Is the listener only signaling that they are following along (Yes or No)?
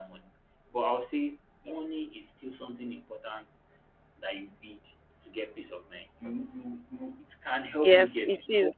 No